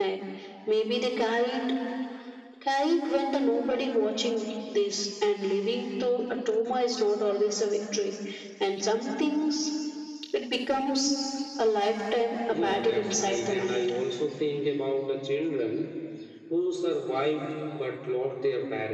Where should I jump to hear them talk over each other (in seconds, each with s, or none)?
12.5 s